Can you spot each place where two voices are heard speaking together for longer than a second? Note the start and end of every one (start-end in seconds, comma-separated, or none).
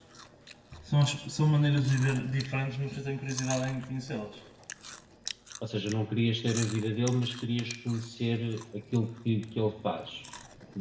none